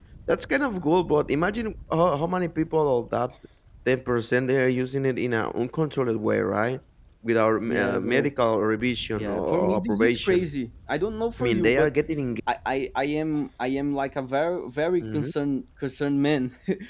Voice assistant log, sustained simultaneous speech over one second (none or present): present